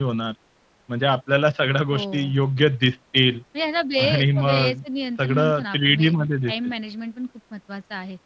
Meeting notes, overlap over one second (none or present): present